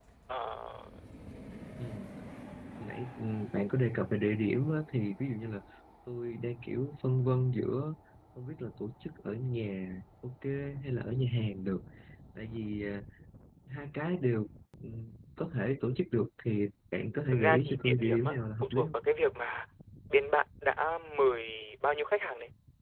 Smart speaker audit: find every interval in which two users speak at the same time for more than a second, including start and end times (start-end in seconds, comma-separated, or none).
17.3-18.9